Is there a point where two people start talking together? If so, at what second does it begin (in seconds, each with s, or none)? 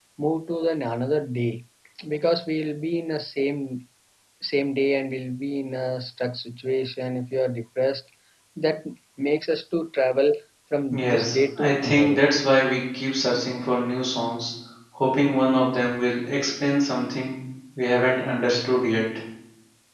10.9 s